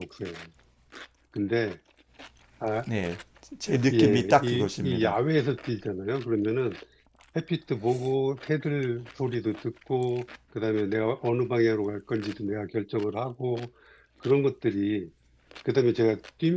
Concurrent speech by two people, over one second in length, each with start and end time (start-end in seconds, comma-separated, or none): 3.9-5.2